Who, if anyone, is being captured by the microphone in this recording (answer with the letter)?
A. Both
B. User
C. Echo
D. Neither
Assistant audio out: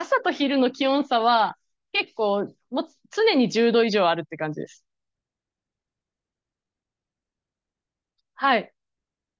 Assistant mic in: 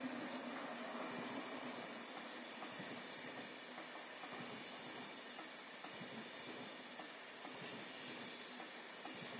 D